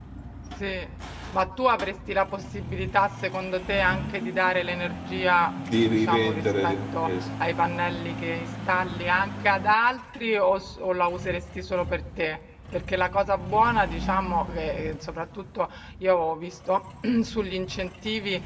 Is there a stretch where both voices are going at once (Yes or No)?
Yes